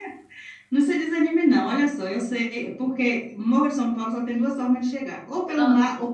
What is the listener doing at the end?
listening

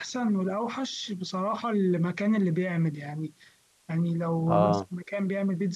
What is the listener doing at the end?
listening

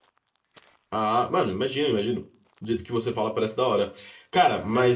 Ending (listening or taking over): listening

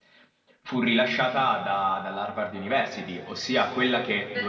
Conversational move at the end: listening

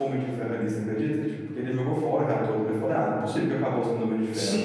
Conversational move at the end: taking over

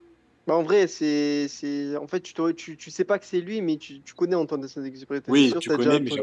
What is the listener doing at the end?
taking over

